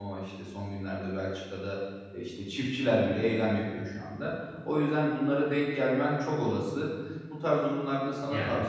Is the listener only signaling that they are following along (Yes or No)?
Yes